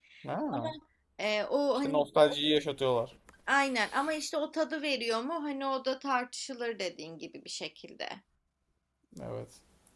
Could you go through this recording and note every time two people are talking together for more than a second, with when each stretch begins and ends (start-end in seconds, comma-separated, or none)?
none